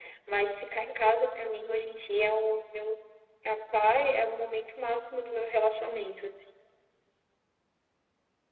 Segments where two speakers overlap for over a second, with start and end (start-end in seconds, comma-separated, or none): none